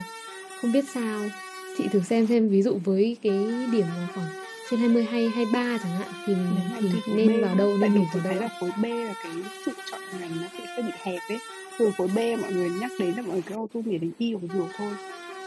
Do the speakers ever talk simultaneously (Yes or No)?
Yes